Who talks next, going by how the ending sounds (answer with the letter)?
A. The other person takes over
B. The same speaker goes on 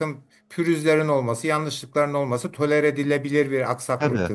A